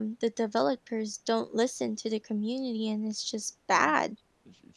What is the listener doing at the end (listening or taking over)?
taking over